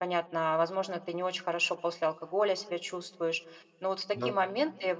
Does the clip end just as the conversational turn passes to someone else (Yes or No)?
No